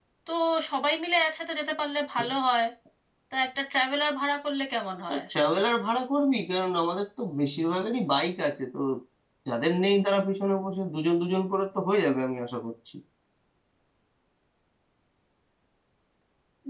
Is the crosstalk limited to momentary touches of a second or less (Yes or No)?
Yes